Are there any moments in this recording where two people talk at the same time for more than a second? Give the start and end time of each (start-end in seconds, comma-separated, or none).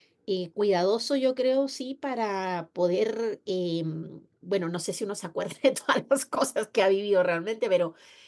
none